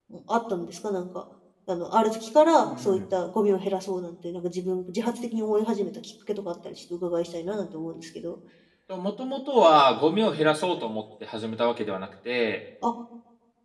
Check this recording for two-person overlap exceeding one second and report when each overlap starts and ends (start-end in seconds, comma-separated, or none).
none